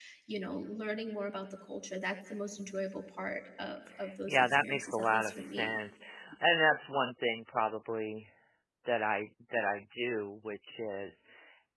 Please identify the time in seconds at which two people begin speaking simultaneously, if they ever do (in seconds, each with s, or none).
4.3 s